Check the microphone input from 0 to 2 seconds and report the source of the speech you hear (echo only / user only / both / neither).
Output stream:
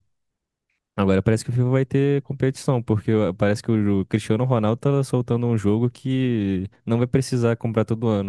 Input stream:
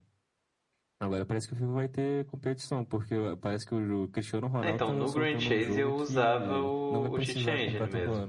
echo only